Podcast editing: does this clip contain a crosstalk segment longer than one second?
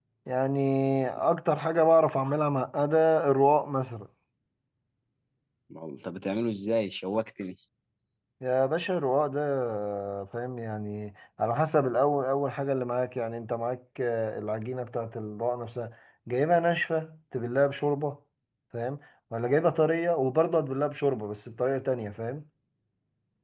No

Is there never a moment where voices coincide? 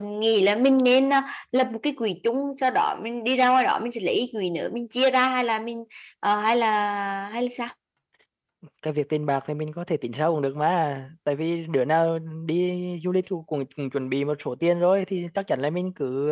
Yes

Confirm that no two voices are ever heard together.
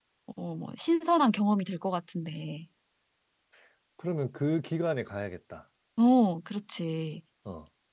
Yes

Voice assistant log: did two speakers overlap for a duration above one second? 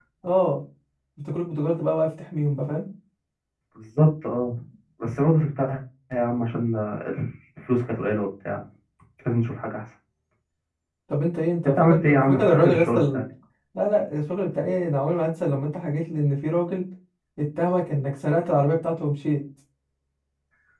Yes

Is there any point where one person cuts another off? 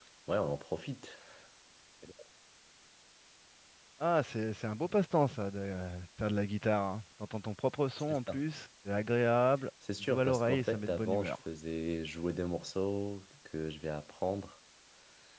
Yes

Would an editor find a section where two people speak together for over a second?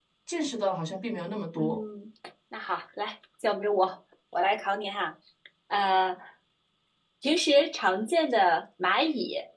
No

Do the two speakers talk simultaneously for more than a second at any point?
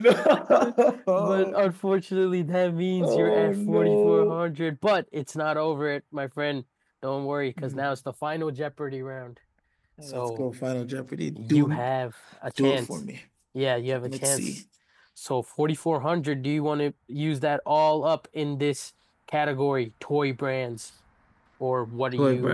Yes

